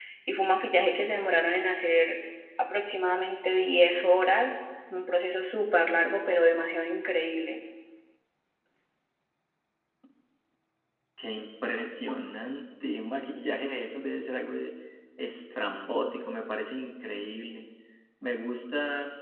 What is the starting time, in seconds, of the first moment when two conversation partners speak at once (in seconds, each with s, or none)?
none